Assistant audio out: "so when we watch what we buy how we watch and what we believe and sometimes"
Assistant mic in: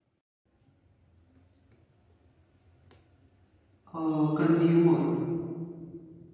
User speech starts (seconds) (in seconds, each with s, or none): 3.9 s